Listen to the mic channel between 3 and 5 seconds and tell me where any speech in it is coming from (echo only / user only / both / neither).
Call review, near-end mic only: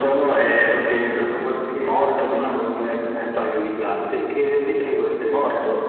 echo only